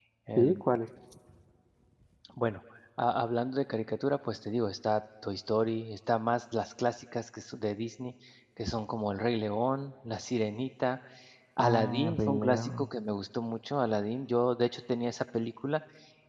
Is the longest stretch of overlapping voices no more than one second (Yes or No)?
No